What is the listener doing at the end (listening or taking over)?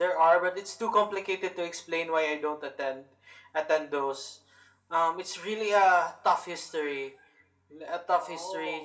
listening